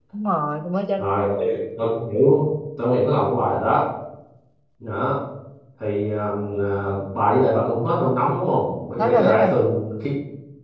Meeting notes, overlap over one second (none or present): none